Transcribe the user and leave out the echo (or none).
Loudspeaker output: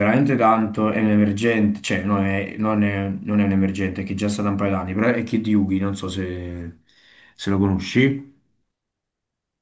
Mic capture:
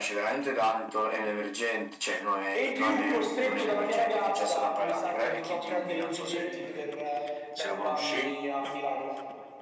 E in più, costretto dalla mia ragazza, mi sa che dovrò prendere i biglietti per eh, Bad Bunny a Milano.